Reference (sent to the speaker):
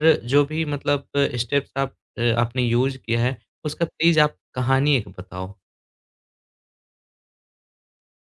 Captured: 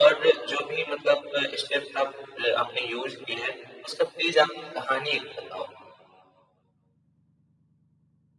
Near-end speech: none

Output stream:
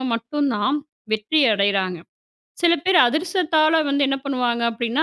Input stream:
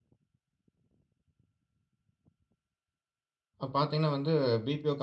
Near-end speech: present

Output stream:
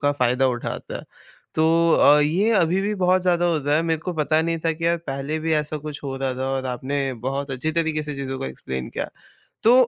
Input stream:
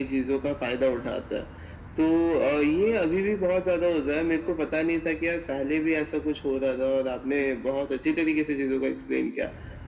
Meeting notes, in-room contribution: none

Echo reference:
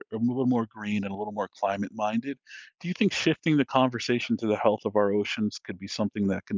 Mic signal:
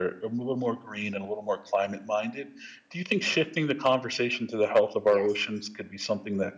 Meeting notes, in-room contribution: present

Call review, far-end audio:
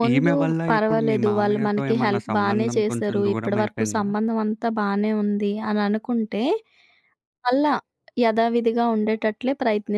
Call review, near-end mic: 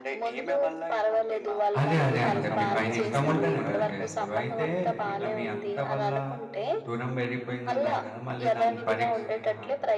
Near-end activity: present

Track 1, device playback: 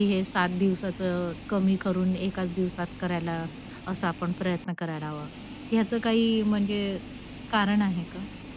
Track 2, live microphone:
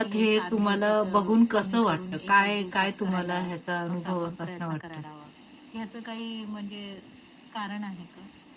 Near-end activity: present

